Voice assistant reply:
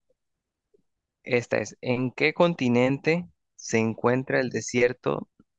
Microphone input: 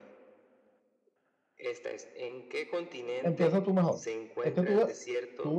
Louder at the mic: user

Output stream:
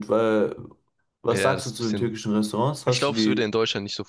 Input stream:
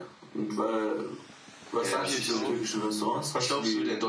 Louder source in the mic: echo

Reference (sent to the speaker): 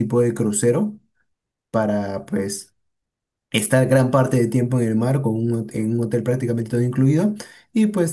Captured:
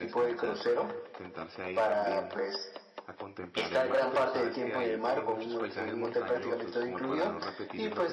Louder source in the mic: echo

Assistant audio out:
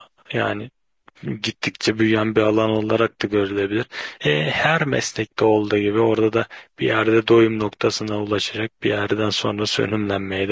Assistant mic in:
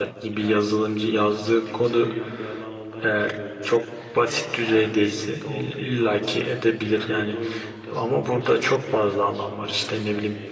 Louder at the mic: user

